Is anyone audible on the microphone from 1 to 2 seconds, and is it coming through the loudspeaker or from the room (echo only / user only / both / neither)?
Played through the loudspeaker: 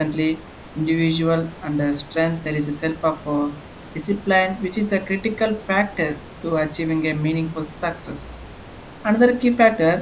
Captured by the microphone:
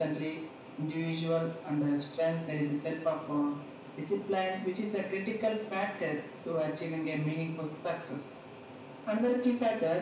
echo only